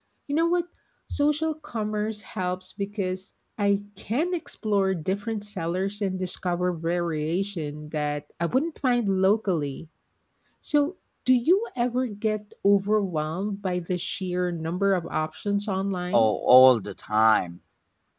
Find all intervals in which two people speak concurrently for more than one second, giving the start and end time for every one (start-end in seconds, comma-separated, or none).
none